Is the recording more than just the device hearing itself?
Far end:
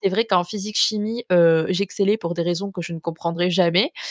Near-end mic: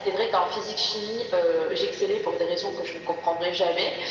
No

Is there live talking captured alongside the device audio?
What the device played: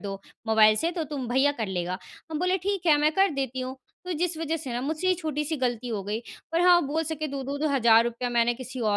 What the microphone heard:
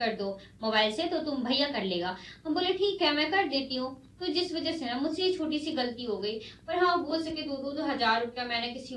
No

